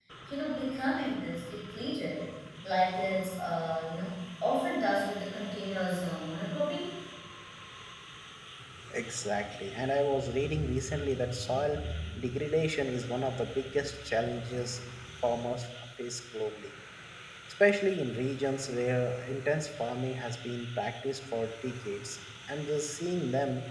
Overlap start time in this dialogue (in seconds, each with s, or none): none